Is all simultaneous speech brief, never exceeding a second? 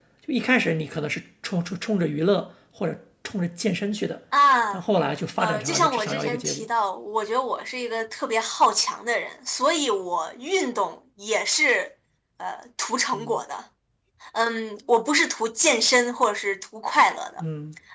No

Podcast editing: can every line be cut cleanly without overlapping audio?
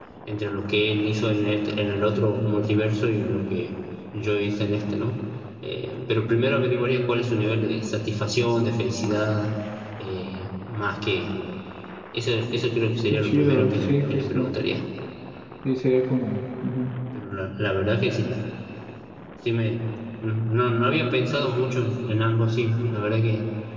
No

